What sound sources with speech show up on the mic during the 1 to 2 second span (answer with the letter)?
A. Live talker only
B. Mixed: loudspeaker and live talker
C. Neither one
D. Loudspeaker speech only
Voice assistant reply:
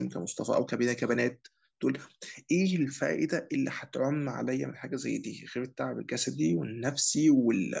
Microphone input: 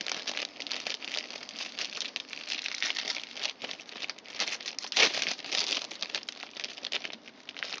C